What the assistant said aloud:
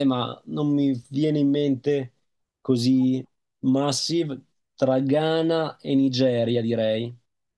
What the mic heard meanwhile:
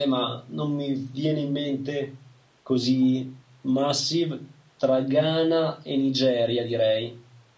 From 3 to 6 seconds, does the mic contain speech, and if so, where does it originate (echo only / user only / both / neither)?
echo only